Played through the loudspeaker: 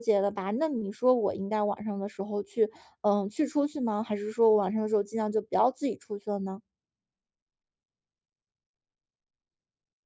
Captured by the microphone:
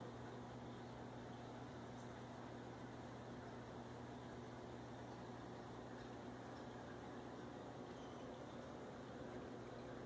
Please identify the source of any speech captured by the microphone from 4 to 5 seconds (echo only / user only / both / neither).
neither